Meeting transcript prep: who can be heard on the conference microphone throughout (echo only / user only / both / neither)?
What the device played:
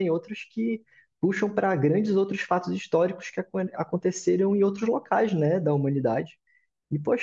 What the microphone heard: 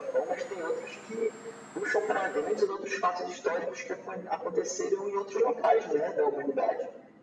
echo only